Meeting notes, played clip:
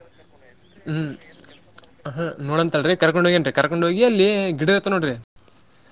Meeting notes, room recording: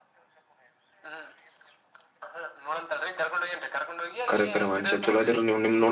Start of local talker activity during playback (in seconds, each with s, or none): 4.3 s